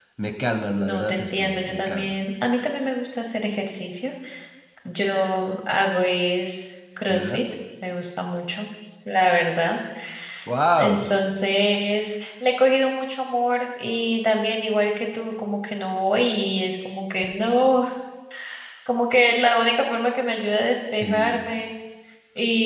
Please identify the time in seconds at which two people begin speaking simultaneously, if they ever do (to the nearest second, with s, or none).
1 s